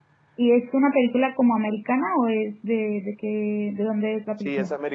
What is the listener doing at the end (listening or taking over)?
taking over